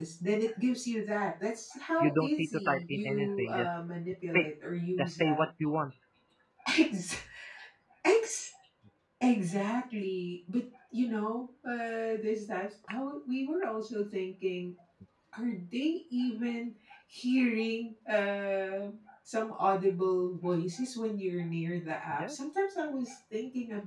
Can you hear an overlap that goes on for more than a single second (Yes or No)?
Yes